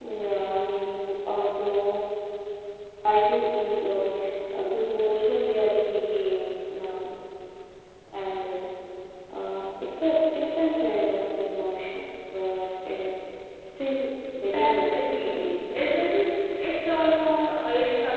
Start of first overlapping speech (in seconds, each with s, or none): 14.4 s